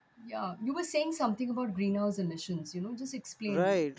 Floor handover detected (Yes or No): Yes